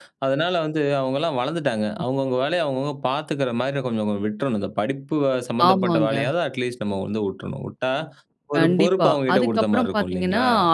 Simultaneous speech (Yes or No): Yes